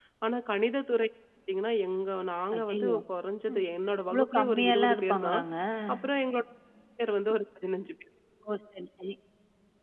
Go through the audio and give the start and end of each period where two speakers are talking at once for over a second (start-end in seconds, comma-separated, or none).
4.1-5.4